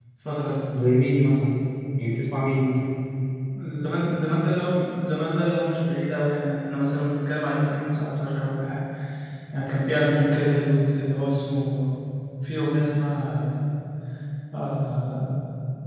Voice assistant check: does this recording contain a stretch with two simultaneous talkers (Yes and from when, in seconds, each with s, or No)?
No